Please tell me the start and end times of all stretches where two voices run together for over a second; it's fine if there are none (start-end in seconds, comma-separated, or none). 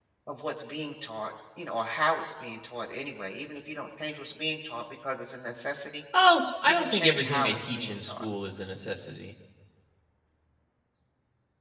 6.6-8.3